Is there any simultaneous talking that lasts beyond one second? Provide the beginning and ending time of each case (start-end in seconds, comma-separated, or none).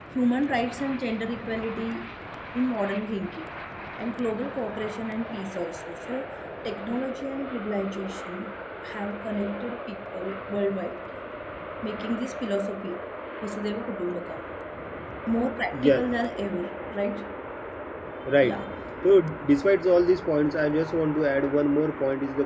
none